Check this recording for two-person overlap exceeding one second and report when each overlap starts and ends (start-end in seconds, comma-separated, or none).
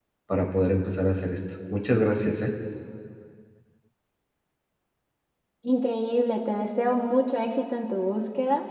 none